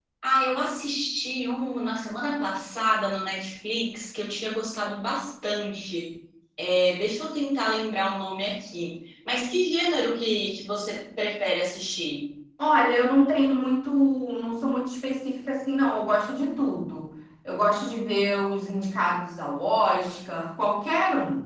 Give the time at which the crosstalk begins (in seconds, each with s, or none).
none